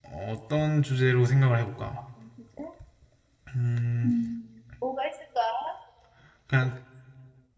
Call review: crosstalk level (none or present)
none